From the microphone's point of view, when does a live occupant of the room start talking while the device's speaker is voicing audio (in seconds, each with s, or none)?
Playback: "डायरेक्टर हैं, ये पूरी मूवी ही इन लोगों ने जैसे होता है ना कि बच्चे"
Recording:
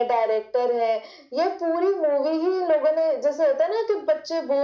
none